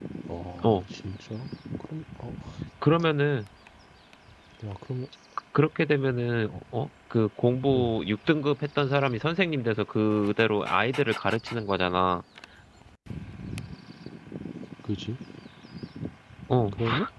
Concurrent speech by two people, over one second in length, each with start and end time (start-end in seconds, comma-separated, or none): none